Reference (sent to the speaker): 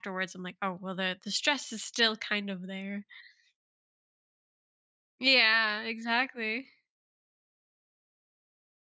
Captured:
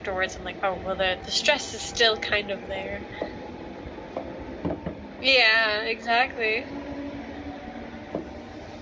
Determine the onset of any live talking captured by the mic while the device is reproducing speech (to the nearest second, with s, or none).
none